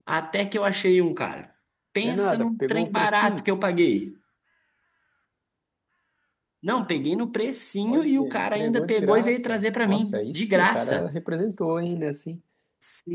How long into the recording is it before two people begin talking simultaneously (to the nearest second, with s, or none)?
2 s